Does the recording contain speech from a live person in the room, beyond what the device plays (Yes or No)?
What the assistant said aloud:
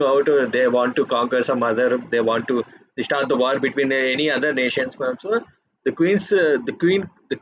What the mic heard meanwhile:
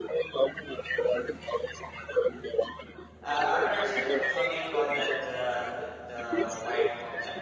Yes